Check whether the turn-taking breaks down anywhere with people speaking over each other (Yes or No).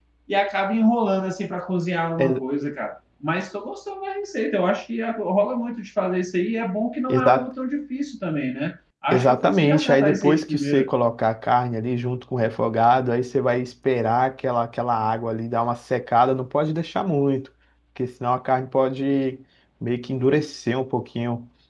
Yes